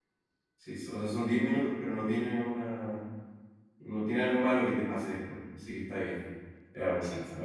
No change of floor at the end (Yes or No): Yes